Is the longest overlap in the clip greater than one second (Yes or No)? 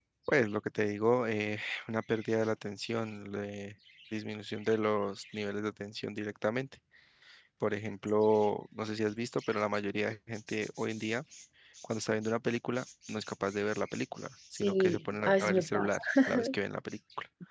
Yes